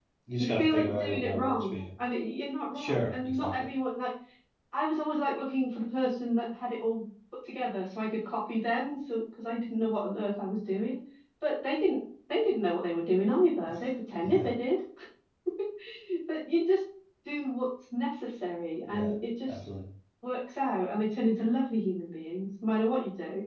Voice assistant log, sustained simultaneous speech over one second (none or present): present